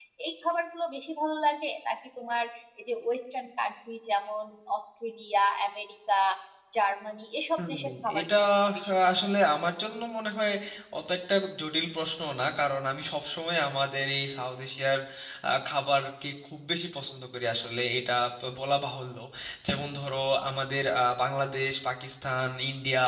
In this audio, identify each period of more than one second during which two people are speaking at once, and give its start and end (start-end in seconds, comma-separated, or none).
7.6-9.2